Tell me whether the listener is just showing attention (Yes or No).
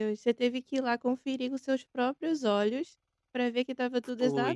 Yes